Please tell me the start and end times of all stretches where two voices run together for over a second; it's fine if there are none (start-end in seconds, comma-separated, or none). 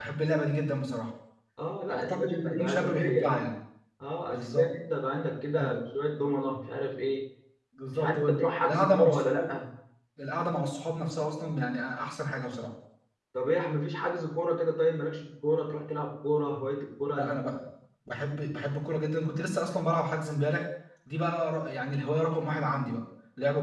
1.9-3.4, 7.9-9.5